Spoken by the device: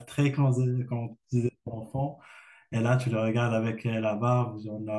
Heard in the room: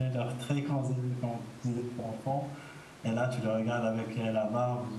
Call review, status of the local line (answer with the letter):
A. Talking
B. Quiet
B